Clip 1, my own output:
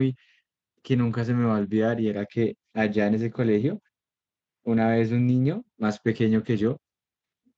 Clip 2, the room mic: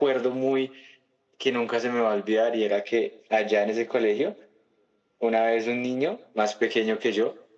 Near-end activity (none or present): none